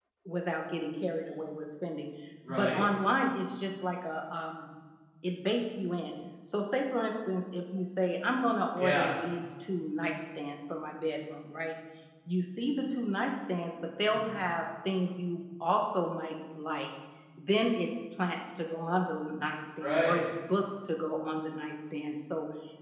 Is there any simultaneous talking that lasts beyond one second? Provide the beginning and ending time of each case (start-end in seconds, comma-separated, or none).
none